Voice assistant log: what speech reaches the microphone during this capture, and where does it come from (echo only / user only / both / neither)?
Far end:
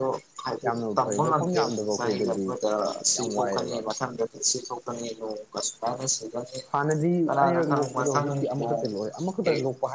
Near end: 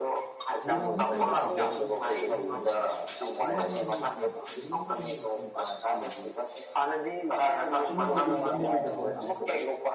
both